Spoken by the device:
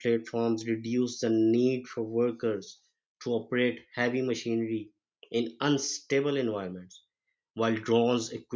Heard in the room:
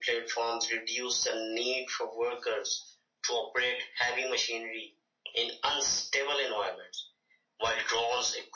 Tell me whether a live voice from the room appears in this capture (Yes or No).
No